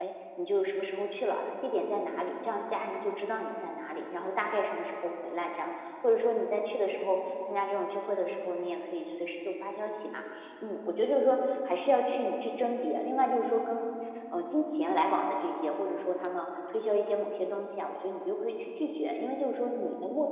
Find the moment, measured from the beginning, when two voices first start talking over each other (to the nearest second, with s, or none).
none